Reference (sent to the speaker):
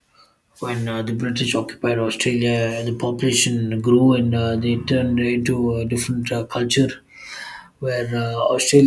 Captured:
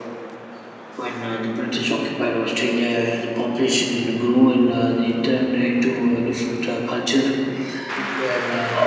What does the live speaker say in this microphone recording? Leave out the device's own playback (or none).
none